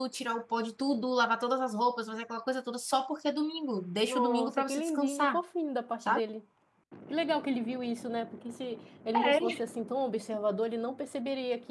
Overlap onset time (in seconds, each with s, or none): 4.1 s